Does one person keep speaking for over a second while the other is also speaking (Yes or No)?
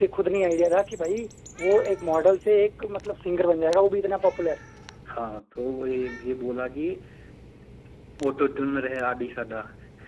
No